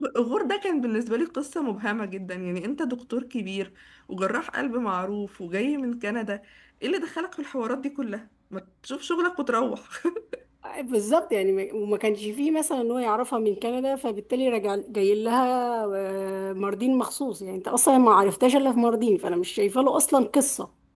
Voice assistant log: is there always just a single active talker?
Yes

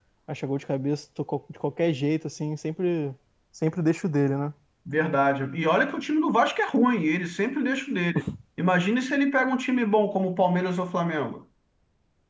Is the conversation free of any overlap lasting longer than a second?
Yes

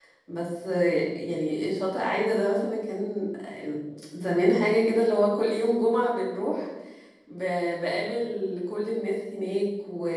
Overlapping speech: No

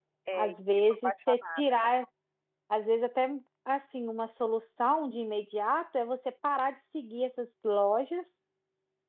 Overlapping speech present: Yes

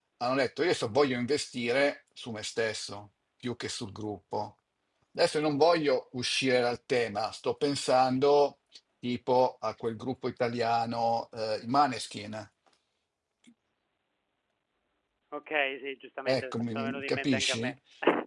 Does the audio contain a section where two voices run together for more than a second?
Yes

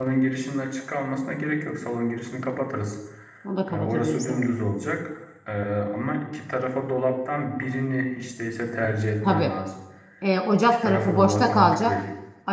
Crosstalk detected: Yes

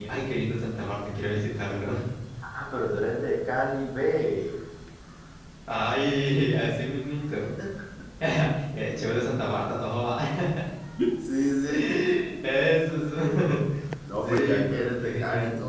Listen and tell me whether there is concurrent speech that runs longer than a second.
Yes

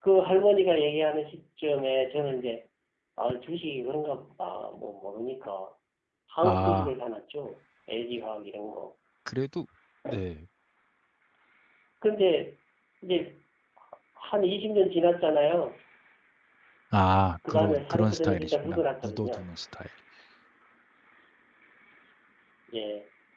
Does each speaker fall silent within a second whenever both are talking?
No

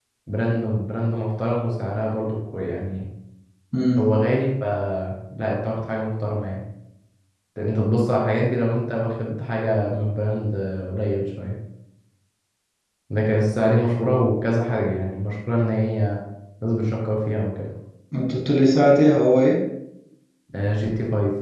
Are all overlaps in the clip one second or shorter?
Yes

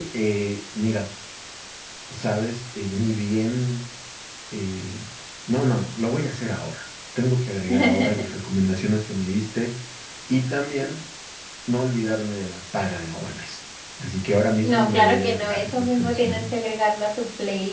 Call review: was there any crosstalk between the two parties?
Yes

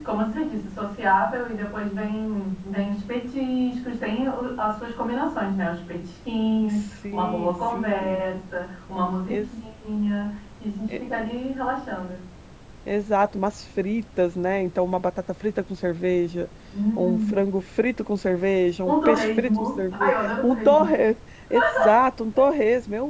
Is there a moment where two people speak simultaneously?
Yes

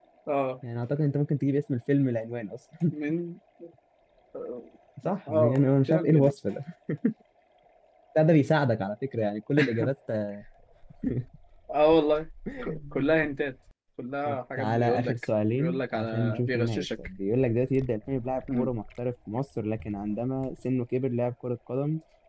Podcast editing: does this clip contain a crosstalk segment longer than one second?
Yes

